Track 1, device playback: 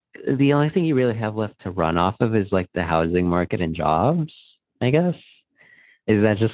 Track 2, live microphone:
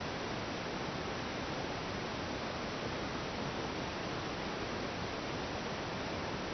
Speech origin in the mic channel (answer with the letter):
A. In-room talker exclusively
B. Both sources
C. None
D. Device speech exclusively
C